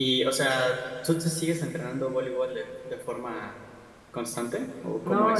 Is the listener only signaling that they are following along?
No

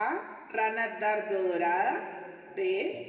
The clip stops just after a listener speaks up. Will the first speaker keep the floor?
Yes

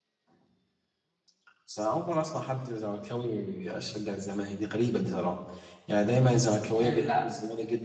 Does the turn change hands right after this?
No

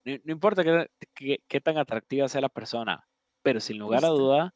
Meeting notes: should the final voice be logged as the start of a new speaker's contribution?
No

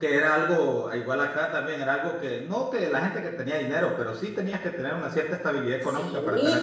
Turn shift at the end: Yes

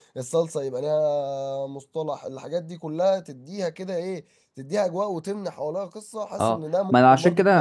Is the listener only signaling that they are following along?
No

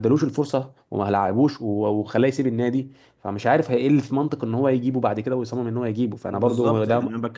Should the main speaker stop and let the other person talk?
Yes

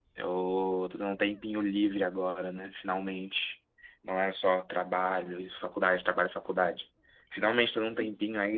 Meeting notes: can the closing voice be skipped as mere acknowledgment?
Yes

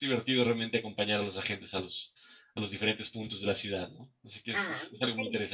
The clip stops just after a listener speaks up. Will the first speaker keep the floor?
No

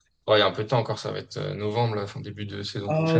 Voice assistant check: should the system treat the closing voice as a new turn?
Yes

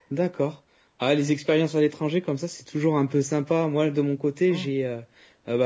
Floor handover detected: No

